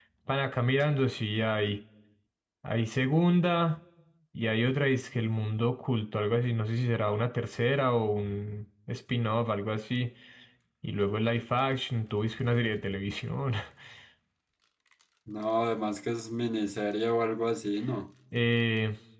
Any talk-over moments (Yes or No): No